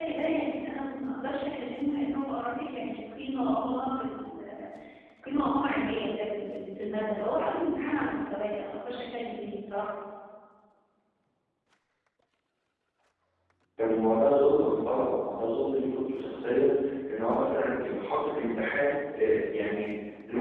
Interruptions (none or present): none